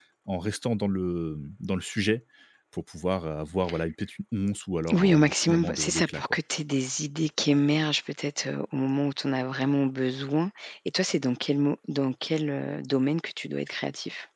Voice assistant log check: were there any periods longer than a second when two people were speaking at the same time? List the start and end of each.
4.9-6.2

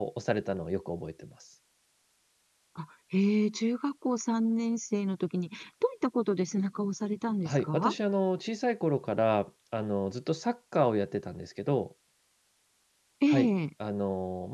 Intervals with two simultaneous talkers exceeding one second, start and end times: none

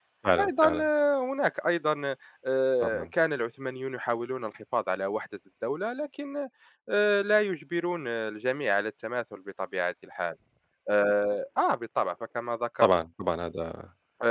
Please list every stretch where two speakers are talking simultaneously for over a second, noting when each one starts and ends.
none

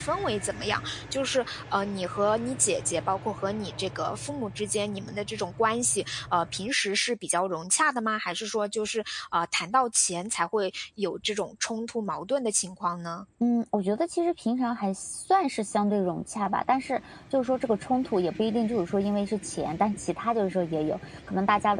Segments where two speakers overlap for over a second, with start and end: none

